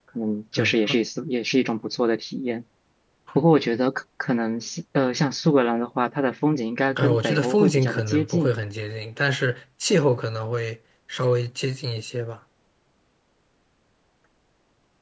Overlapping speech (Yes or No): Yes